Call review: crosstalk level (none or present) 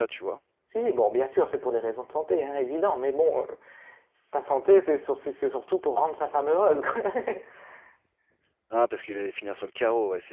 none